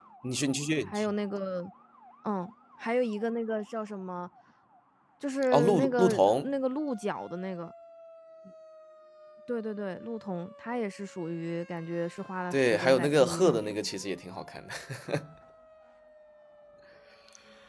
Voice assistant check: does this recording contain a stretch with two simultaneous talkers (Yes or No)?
Yes